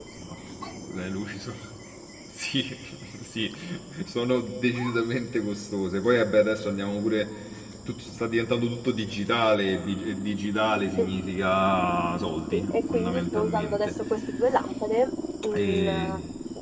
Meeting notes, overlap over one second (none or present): present